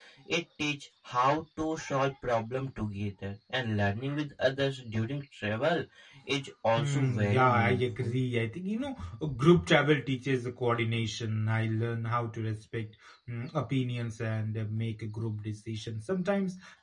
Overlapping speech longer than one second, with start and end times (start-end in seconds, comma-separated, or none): 6.8-8.2